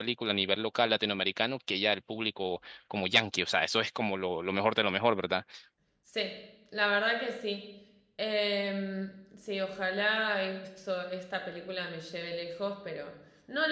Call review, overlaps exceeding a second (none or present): none